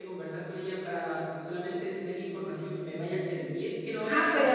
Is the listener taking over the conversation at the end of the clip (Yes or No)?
Yes